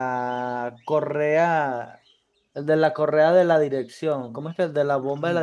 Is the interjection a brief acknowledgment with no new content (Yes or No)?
No